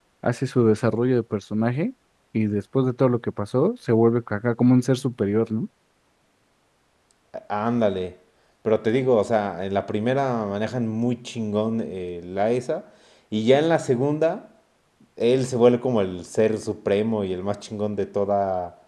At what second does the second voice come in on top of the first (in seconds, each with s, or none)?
none